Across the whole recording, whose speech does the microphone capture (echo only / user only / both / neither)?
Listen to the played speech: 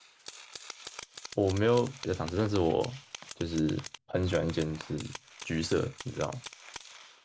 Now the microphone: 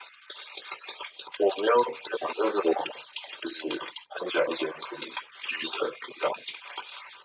echo only